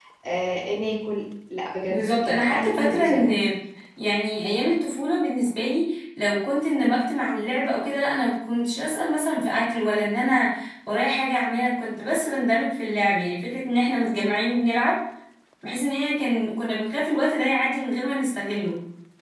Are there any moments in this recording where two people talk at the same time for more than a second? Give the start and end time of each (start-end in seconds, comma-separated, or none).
1.9-3.3